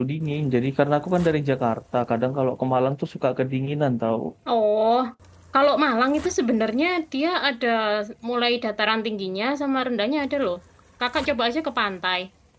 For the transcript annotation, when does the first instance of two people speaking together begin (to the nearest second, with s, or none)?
none